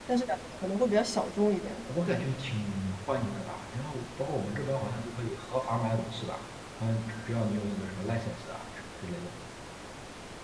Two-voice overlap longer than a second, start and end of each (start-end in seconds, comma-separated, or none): none